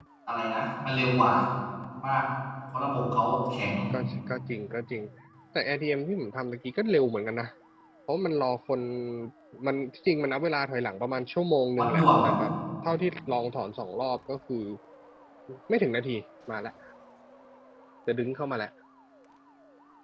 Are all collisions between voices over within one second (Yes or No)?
Yes